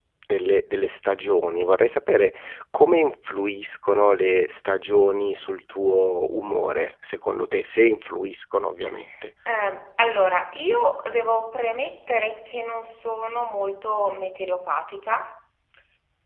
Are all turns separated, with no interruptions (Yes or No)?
Yes